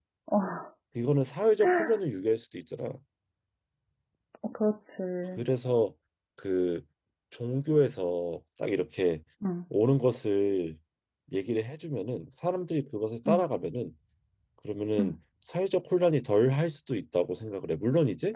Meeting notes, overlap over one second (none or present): none